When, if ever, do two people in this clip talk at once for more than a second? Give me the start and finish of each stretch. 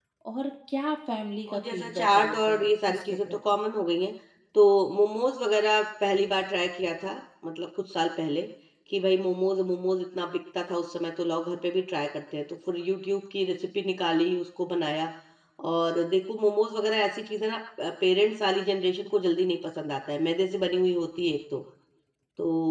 1.5-3.4

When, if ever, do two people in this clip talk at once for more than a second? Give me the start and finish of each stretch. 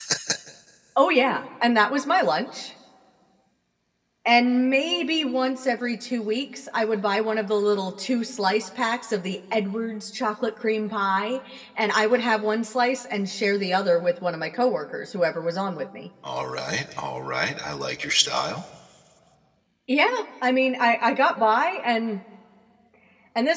none

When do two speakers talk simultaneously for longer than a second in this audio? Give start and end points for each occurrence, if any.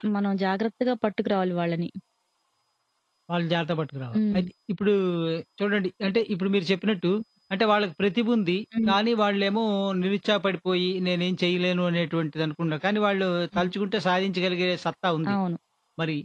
none

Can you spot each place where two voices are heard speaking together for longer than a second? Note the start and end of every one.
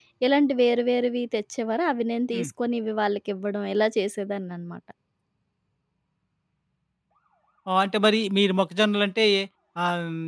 none

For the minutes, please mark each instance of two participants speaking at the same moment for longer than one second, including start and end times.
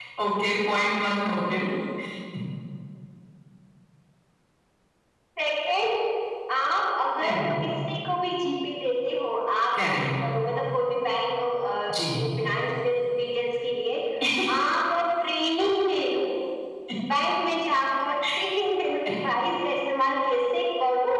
none

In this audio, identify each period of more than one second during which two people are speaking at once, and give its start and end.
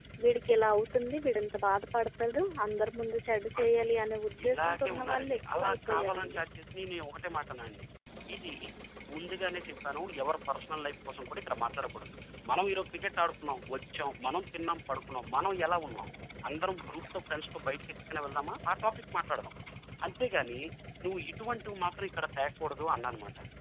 4.4-6.4

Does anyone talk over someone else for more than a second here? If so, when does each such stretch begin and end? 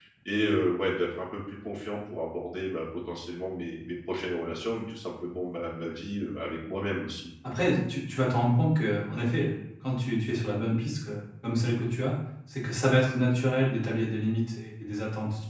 none

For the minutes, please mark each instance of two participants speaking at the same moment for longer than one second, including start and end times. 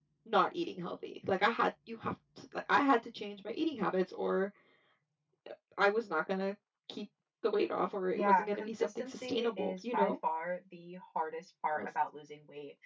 8.2-10.1

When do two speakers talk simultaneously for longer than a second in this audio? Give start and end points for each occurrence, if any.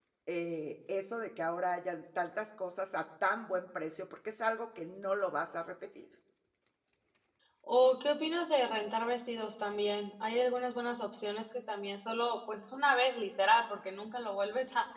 none

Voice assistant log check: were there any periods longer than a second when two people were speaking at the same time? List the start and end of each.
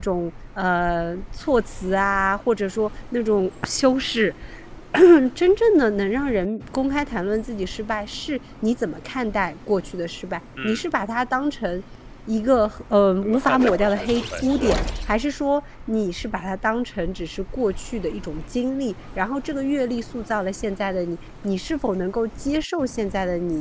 13.2-14.8

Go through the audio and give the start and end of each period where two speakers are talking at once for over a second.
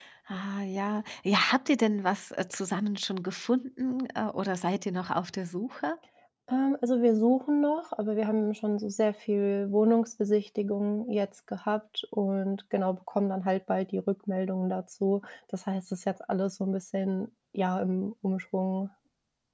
none

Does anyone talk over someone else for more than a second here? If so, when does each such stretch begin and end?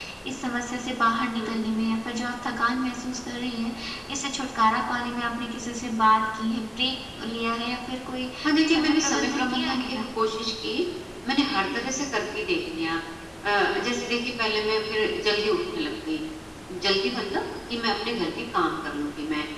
8.7-9.9

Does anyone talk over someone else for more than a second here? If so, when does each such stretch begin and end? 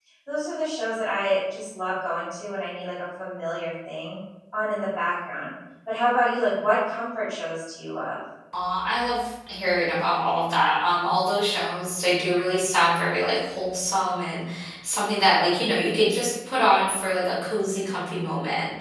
none

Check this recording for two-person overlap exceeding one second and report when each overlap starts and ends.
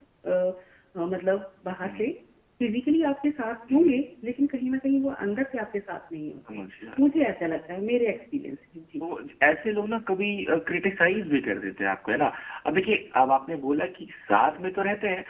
none

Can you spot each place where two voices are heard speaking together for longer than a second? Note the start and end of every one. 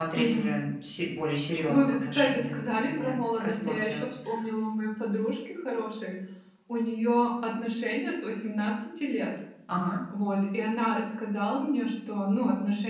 1.7-4.0

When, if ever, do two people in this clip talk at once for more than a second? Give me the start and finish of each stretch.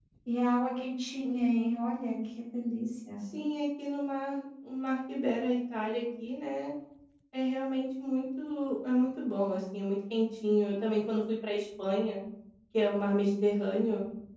none

